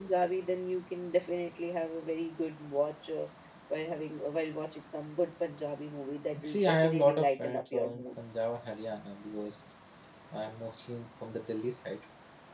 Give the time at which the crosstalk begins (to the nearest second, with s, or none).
6 s